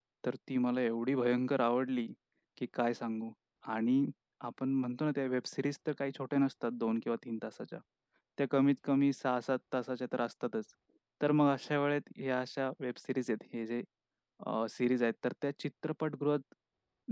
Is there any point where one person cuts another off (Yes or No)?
No